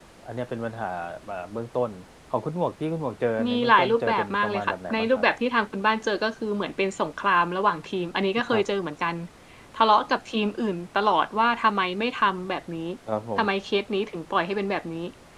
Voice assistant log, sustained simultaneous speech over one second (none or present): present